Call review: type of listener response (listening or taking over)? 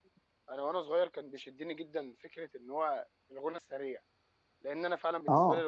listening